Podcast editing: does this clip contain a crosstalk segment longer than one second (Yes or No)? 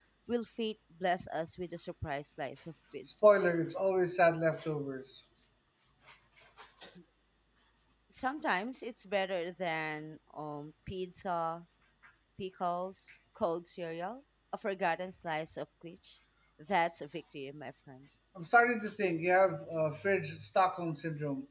No